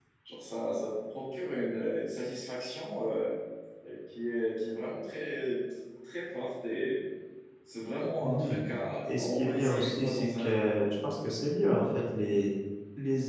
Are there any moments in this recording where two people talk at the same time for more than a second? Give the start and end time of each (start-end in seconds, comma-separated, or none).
9.1-10.6